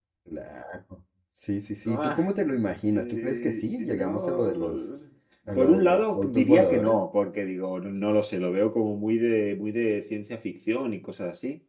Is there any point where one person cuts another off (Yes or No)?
Yes